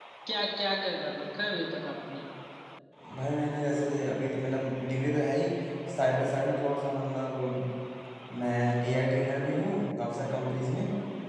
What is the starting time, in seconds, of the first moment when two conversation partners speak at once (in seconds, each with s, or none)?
none